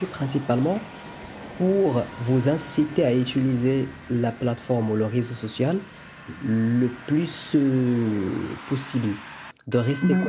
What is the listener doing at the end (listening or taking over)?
listening